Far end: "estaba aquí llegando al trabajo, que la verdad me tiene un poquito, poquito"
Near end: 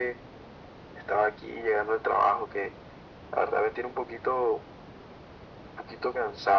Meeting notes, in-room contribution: none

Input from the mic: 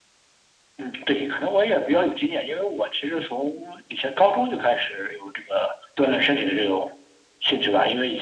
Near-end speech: none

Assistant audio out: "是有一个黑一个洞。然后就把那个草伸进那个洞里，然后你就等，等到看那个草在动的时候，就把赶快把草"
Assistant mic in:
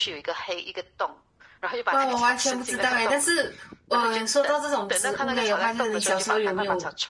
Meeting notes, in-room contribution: present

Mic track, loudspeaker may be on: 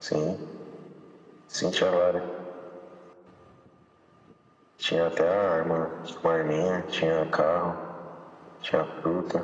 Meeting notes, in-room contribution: none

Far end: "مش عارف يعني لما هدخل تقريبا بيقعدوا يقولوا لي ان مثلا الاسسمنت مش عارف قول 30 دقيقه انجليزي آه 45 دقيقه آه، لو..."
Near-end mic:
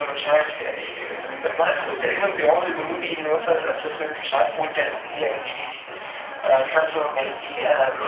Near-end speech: none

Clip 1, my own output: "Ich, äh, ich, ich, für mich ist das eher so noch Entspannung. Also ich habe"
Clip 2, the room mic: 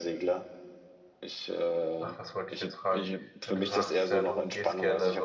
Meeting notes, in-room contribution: present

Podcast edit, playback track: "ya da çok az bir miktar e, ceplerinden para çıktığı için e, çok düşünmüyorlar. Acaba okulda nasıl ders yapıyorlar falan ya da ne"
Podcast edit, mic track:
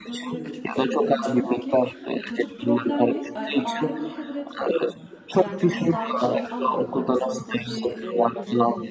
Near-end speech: present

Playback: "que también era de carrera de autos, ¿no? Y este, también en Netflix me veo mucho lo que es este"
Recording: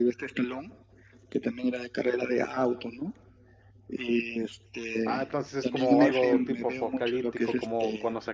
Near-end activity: present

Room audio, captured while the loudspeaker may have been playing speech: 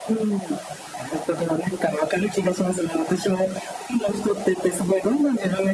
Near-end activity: none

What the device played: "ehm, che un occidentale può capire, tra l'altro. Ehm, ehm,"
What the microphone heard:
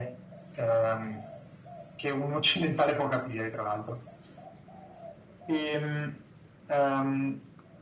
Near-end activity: none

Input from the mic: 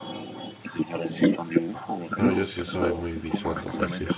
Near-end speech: present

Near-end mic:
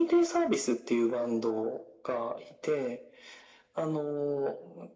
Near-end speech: none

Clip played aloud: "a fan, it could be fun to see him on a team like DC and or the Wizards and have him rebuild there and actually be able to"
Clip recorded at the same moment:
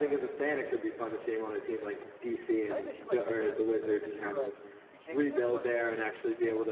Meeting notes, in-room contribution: present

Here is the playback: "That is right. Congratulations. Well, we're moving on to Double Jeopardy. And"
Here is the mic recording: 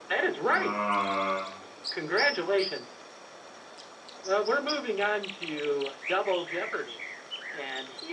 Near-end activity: present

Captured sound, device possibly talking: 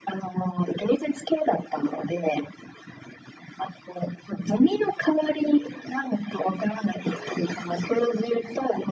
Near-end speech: none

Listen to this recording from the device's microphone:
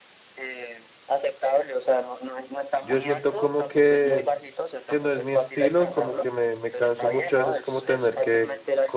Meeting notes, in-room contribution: present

